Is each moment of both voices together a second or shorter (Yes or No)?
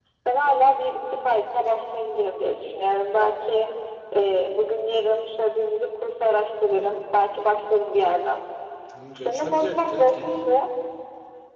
No